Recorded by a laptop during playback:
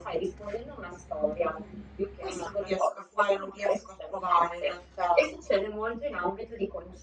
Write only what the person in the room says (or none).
none